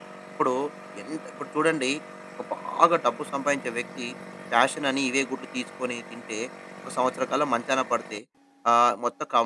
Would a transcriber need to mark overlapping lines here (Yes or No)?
No